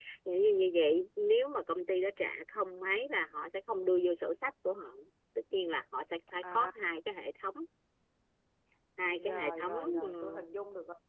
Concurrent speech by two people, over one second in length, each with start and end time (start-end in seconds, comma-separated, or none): 9.3-10.5